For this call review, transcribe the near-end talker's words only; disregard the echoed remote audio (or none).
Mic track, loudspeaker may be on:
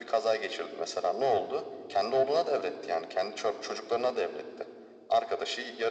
none